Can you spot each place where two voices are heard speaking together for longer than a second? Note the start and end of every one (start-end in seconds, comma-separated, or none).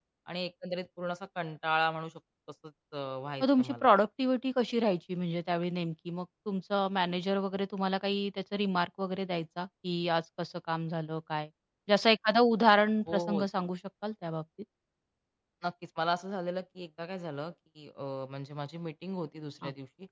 none